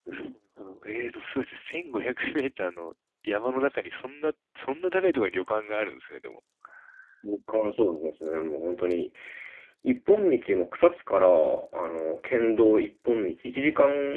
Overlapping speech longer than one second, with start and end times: none

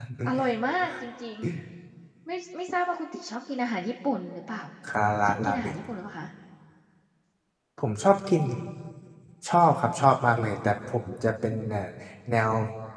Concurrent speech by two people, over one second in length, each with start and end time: none

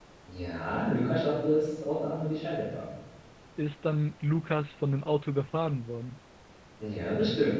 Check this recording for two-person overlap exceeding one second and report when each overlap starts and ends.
none

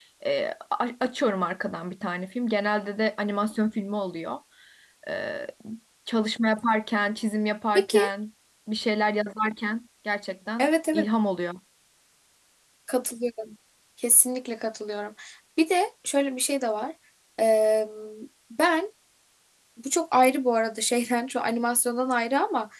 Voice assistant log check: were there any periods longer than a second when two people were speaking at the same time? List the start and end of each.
none

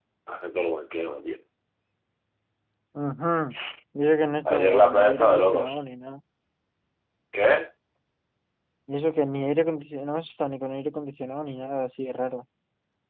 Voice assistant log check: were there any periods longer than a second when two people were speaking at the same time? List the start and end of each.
4.5-5.8

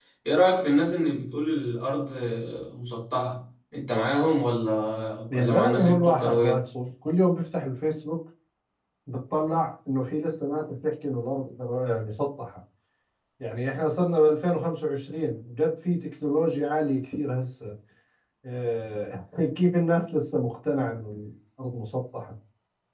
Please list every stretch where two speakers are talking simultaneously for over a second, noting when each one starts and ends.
5.3-6.6

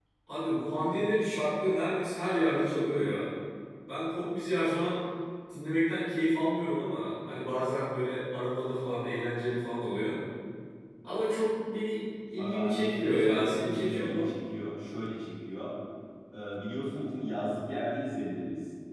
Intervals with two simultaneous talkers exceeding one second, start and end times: 12.4-14.3

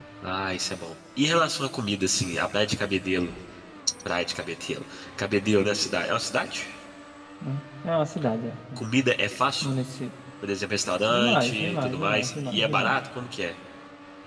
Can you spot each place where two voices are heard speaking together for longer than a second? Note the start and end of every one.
11.1-12.9

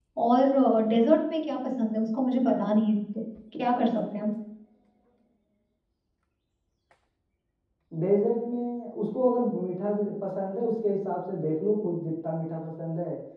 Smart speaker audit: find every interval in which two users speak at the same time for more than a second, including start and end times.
none

